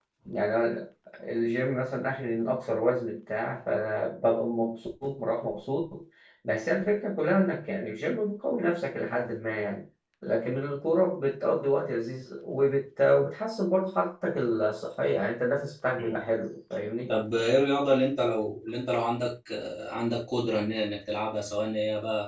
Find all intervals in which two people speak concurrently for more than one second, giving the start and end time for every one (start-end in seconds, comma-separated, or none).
none